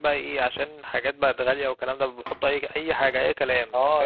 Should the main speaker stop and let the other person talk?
Yes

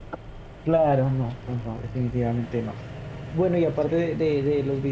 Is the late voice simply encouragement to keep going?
Yes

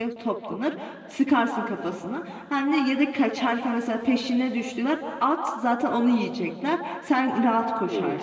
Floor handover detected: Yes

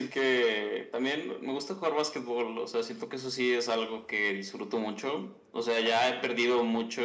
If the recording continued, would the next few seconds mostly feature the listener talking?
No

